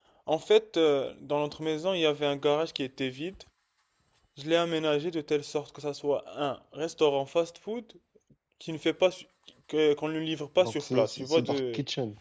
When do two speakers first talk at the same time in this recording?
10.6 s

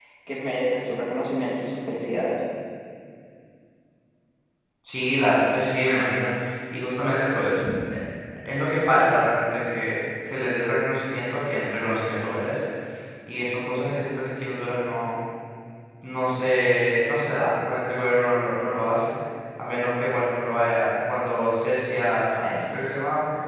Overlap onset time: none

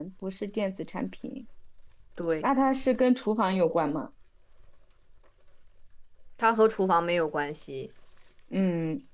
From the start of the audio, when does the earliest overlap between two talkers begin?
none

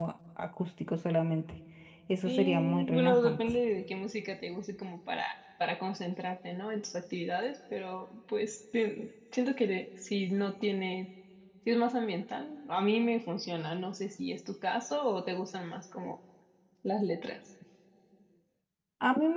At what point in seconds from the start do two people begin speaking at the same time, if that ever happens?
2.2 s

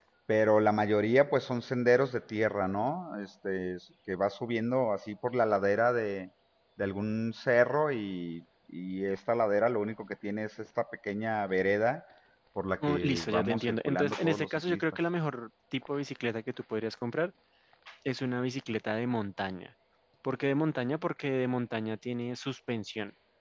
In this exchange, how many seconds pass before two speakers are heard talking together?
12.9 s

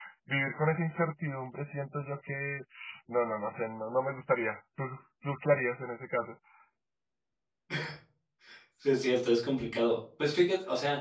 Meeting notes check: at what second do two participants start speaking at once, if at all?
none

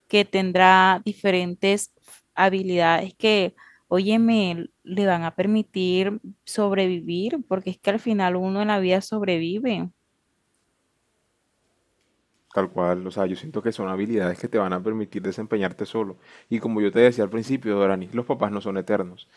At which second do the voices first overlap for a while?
none

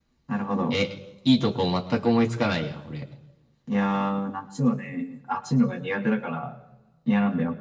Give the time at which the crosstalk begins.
none

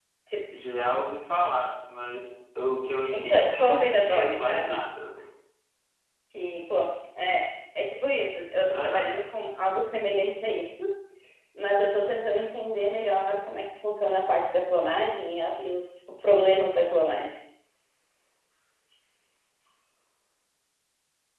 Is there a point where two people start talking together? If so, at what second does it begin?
3.1 s

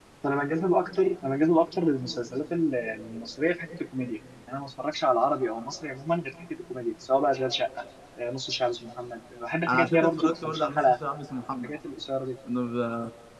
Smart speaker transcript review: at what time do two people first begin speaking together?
9.7 s

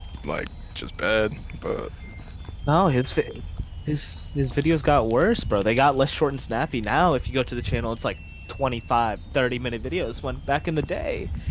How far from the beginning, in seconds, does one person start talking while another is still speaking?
none

